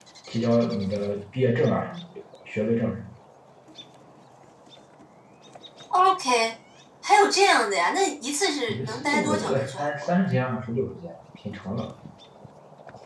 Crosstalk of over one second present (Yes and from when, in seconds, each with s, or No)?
Yes, from 8.7 s